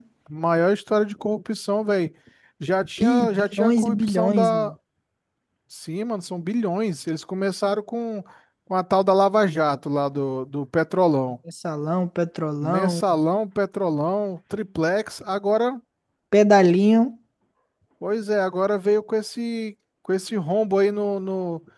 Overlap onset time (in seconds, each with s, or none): 3.0 s